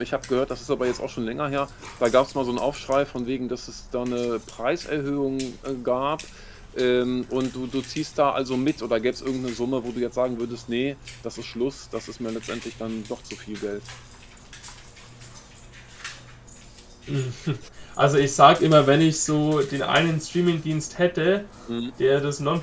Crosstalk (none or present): none